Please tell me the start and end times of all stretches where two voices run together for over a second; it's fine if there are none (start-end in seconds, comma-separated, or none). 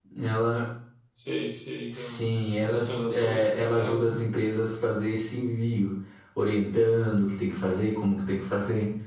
2.6-4.2